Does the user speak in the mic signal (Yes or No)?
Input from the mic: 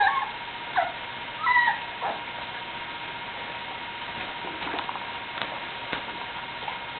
No